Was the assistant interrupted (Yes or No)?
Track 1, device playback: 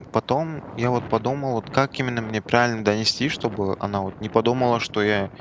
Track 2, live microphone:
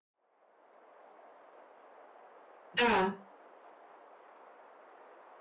Yes